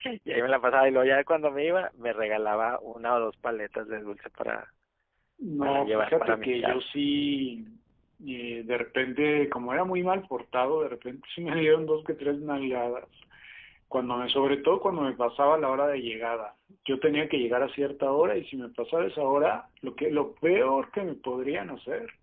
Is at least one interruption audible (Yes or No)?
Yes